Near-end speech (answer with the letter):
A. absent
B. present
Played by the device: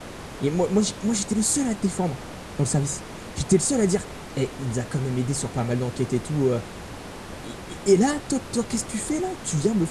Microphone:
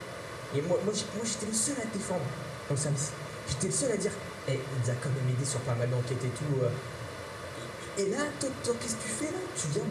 A